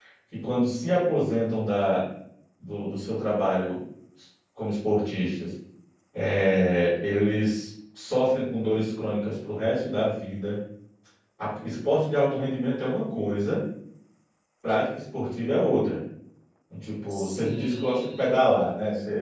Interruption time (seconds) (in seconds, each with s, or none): 17.1 s